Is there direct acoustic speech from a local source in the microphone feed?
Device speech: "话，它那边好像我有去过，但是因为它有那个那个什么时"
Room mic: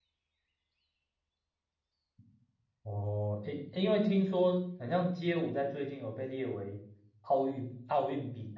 Yes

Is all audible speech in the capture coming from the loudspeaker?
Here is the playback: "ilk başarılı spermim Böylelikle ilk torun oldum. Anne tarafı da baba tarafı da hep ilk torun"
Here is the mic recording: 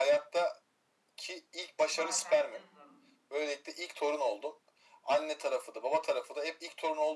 No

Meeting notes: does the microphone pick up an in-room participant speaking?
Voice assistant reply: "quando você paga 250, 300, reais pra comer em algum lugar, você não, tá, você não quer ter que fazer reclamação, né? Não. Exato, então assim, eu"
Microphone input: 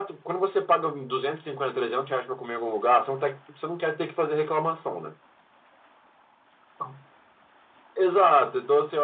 No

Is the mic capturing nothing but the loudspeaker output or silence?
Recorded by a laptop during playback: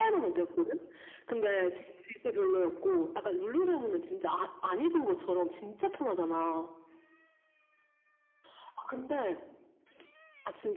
Yes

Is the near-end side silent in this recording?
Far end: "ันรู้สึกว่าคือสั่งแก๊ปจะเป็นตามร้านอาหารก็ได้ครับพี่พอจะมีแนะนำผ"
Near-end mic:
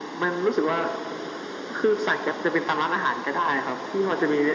Yes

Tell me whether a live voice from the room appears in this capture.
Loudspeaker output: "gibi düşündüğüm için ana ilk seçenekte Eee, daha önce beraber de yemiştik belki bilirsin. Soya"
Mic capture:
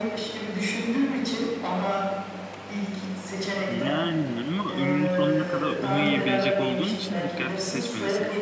Yes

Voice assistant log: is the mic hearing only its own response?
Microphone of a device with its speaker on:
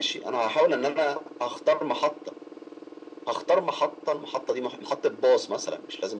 Yes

